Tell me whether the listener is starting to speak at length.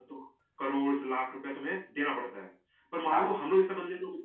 No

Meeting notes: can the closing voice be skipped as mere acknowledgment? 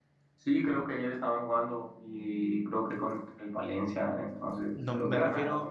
No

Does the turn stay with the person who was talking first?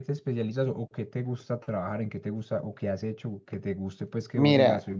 No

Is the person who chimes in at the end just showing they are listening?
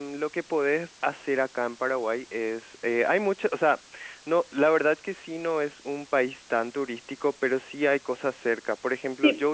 No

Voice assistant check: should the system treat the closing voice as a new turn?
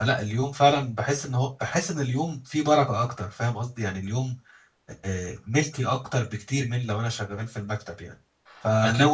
No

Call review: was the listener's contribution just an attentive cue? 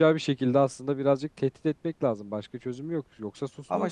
No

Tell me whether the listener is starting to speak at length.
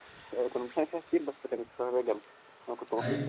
Yes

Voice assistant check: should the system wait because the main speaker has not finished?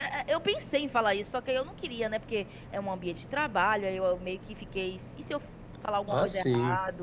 Yes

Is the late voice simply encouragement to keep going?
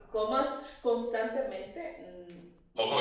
No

